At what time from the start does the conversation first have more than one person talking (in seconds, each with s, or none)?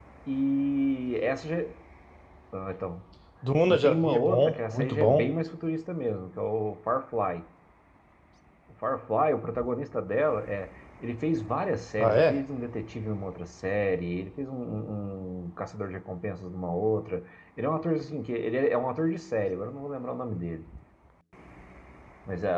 3.7 s